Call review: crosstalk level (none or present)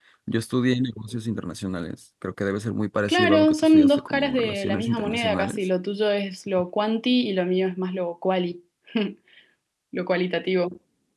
present